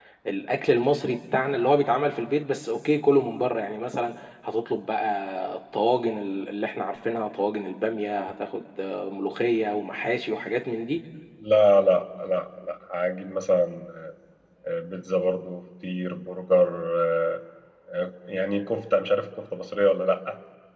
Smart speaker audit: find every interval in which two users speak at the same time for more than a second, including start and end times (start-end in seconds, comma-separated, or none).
none